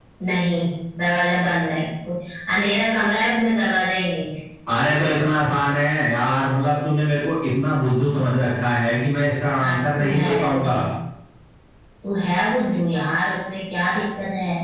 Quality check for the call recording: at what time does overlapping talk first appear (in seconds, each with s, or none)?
9.6 s